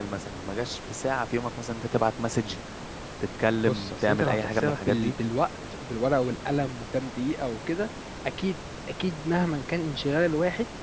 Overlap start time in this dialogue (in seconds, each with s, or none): 3.7 s